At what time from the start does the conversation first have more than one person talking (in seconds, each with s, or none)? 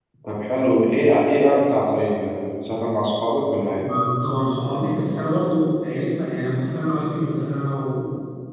none